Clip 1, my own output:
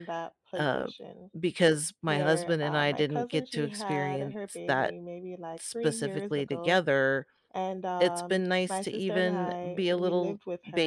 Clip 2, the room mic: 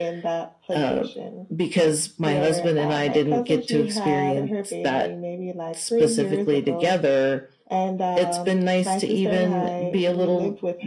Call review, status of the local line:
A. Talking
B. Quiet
B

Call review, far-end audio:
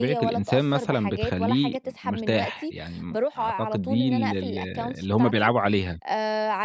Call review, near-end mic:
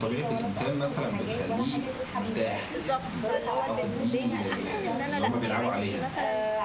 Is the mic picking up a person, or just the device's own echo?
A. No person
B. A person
B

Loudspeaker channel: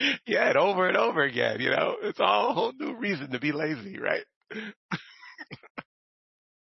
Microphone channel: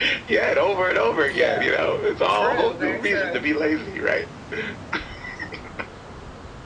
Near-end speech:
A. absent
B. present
B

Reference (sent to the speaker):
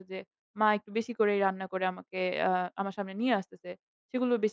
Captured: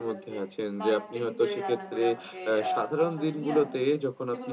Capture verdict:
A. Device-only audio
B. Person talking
B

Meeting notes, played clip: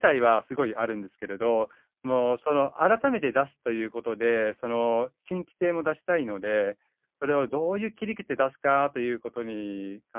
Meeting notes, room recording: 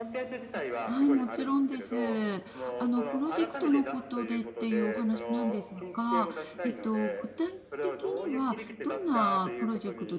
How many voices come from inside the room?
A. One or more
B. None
A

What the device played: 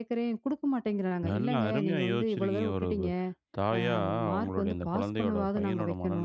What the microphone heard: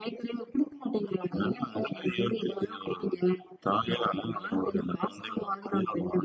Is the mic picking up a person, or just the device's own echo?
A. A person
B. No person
B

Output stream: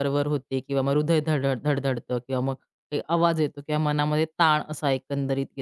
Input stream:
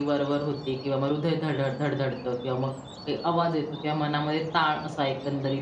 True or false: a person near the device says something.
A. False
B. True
A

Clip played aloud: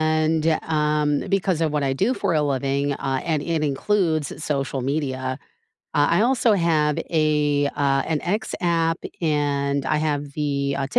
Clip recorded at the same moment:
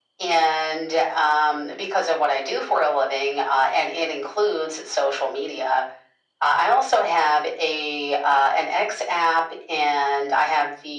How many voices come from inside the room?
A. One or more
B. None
B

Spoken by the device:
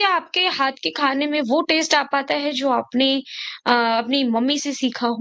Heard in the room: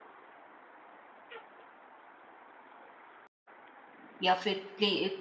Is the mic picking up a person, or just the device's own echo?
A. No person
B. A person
B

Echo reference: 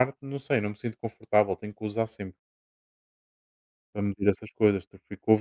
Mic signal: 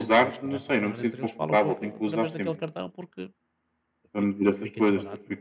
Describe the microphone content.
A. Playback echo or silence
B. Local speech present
B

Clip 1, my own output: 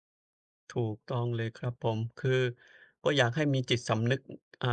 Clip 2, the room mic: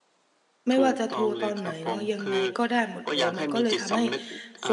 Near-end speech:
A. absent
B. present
B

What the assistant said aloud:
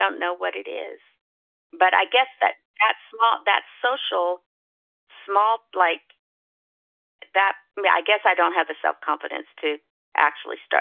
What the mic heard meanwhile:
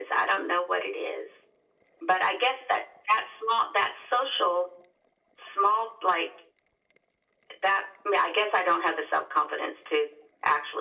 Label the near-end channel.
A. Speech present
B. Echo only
B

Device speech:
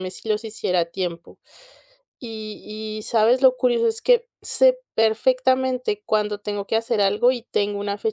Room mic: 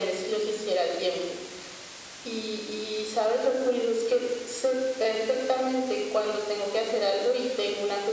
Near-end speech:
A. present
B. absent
B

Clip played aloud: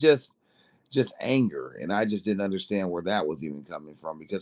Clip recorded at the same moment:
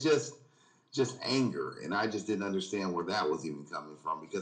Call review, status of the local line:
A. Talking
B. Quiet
B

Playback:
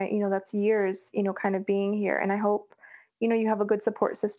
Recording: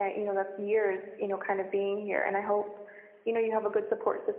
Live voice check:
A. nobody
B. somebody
A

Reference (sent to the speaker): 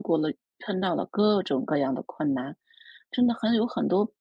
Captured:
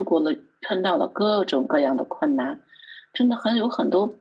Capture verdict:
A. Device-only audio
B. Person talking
A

